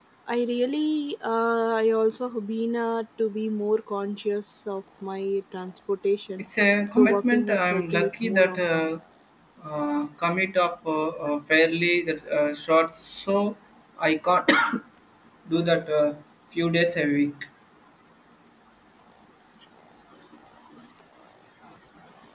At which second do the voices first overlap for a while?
7.0 s

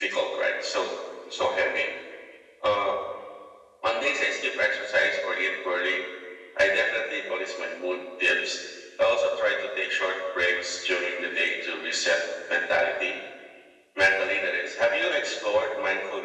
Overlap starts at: none

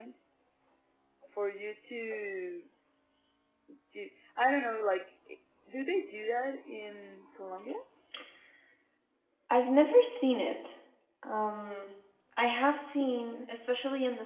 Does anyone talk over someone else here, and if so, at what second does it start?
none

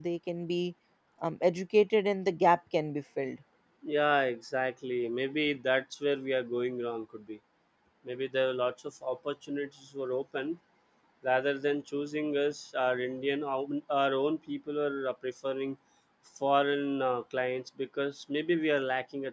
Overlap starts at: none

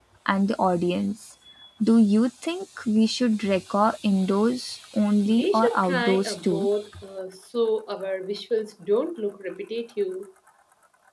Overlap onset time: 5.3 s

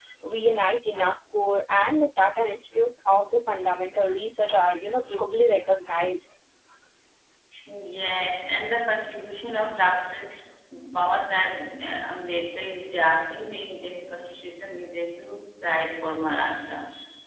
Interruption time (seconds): none

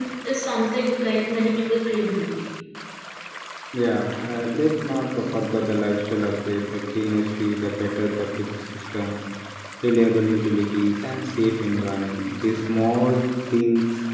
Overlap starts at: none

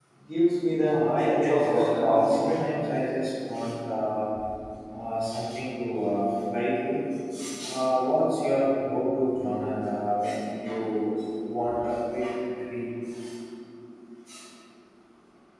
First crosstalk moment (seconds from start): 0.8 s

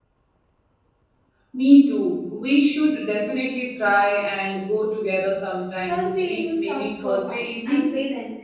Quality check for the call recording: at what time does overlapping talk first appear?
5.9 s

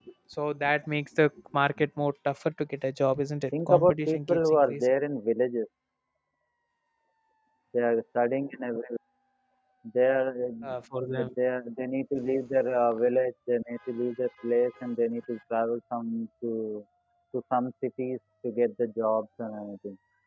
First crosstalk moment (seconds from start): 3.5 s

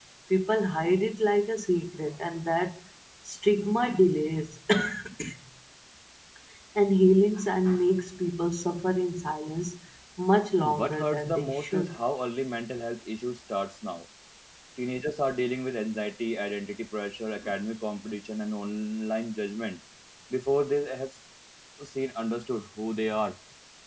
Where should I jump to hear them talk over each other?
10.8 s

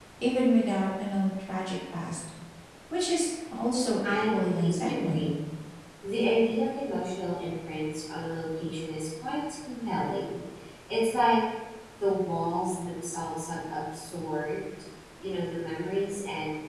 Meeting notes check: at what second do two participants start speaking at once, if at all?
4.0 s

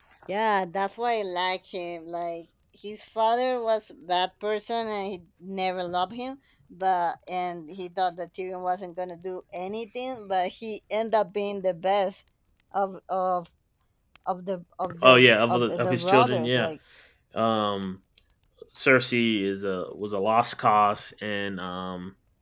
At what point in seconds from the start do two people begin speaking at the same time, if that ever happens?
15.0 s

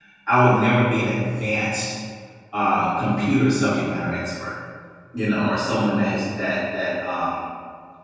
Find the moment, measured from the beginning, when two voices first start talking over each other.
none

